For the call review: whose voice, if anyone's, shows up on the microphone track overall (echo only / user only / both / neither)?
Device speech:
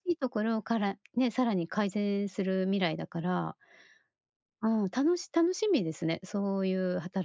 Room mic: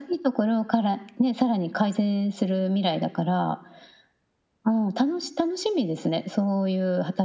echo only